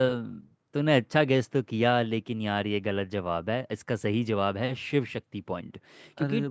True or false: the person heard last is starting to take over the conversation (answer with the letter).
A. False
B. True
A